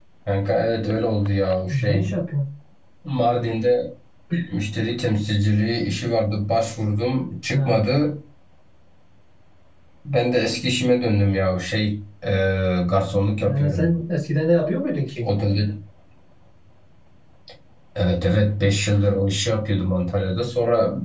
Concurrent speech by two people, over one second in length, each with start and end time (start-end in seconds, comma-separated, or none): none